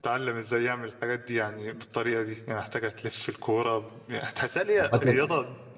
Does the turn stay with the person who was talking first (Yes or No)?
Yes